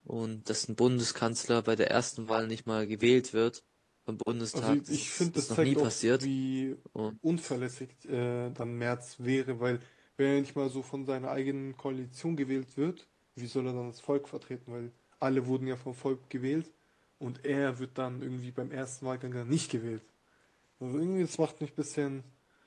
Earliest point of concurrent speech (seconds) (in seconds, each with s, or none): 4.5 s